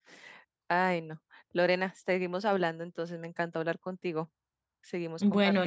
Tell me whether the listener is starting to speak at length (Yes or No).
Yes